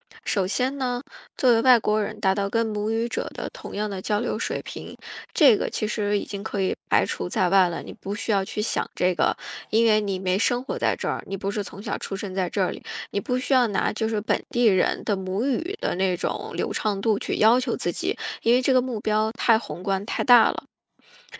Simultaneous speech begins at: none

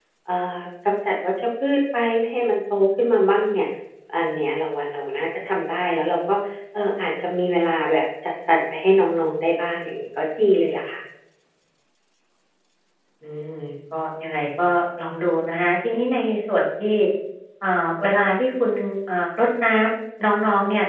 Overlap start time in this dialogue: none

